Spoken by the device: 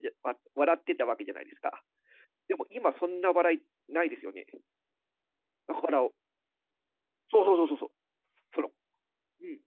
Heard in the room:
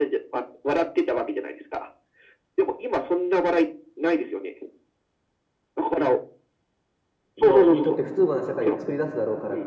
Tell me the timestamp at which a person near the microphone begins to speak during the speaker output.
7.4 s

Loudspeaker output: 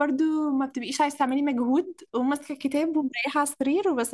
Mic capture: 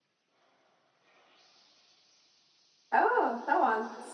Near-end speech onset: 2.9 s

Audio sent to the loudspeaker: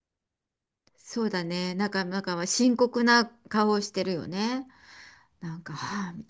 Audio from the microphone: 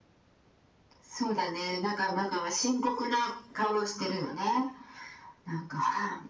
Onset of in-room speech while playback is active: none

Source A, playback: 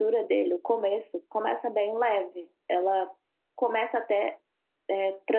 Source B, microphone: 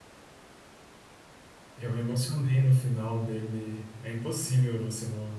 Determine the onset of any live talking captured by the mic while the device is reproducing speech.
1.8 s

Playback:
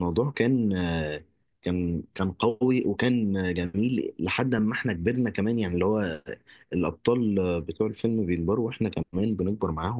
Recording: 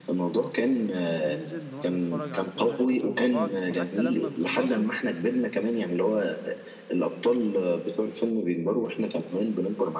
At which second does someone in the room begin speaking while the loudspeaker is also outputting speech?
1.3 s

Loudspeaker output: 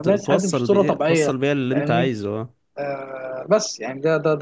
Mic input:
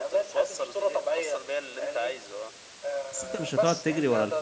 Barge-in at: 3.1 s

